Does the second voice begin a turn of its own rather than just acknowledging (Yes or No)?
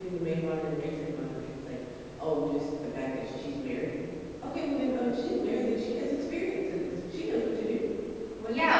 Yes